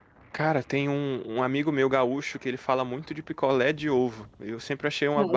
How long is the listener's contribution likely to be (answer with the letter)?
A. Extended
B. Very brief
A